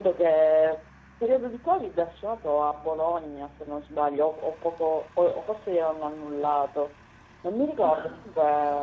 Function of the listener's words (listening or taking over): listening